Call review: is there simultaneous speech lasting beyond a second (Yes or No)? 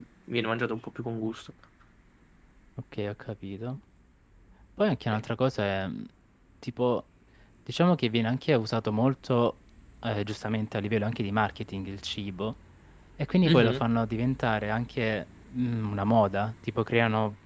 No